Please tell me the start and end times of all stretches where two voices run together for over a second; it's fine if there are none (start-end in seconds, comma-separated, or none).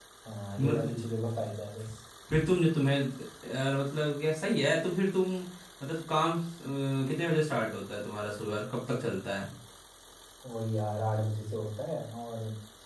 none